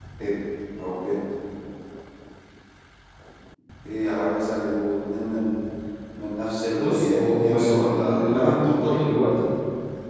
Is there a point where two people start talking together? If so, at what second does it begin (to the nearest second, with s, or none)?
7 s